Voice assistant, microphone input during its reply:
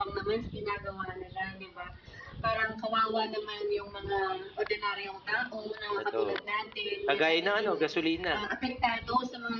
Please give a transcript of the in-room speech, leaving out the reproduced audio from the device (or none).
Totoo. Kagaya ng ano, gasolina.